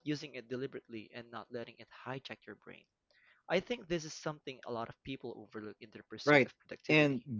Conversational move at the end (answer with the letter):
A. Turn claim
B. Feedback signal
A